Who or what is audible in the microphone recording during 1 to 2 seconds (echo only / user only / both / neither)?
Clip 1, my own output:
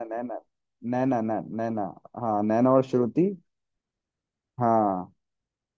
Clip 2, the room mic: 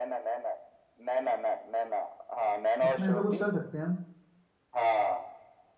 echo only